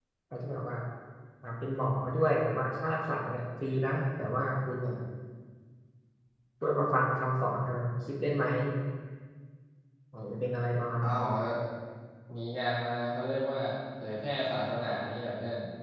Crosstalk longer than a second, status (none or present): none